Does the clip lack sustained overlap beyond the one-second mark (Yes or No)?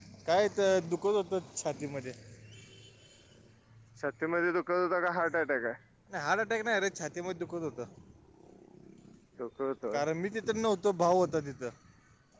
Yes